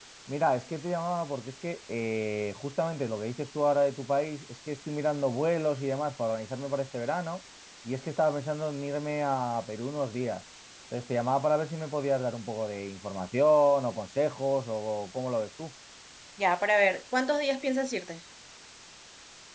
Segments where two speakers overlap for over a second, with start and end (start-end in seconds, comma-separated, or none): none